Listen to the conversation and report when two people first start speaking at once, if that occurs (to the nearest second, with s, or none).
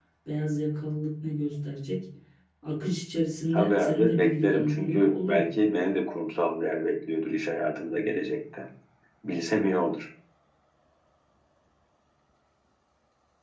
4 s